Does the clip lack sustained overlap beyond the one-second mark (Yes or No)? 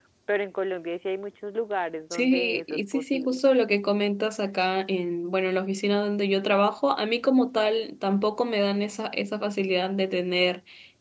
No